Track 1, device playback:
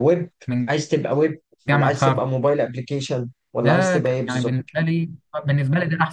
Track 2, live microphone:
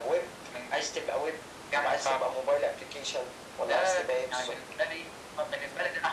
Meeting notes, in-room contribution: none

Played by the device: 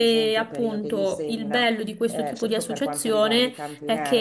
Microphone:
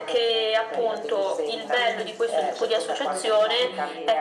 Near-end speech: present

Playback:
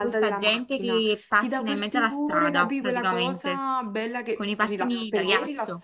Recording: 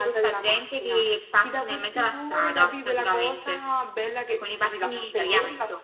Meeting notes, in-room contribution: none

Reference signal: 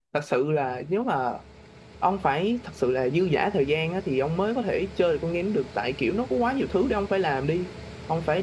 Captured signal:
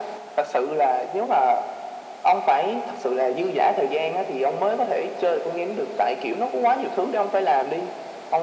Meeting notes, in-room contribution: none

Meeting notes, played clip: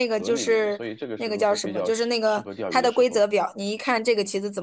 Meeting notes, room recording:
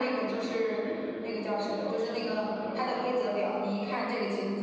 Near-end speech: none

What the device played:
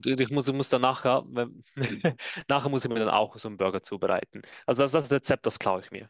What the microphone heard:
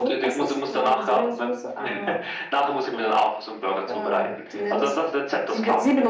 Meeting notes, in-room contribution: present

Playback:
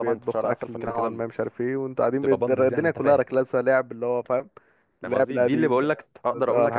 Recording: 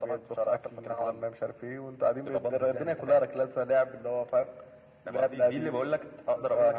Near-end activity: none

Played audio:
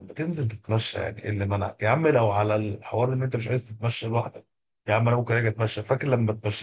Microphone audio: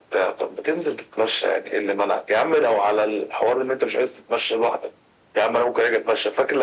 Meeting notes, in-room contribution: none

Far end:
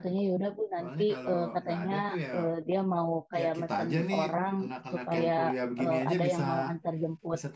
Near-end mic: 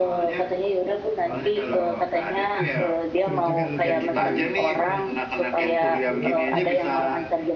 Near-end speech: present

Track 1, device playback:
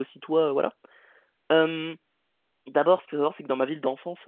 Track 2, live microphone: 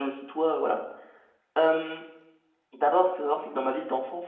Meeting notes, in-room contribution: none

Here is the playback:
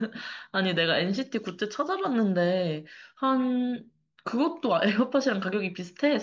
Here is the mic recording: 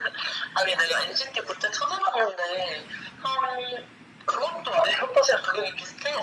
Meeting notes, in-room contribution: none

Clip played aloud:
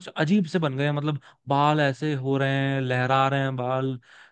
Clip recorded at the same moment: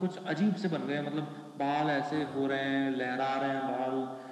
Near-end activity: present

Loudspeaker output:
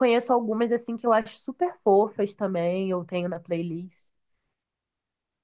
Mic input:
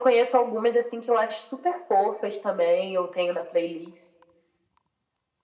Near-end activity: none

